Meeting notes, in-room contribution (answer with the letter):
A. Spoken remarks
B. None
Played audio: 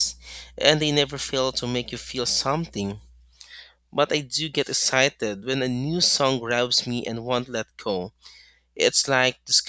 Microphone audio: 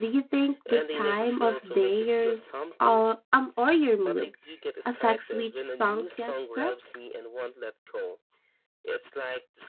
A